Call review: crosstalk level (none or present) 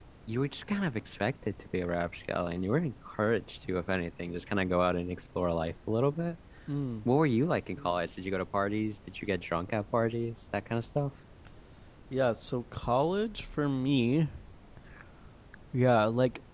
none